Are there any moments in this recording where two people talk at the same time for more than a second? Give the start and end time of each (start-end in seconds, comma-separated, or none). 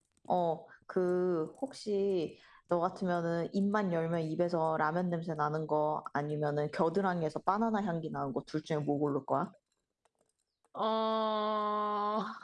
none